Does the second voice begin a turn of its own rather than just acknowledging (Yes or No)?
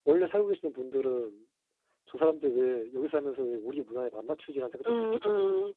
Yes